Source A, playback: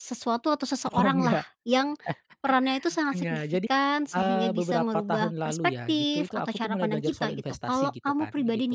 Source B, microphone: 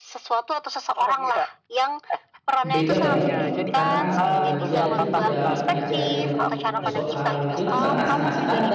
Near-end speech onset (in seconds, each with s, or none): 2.6 s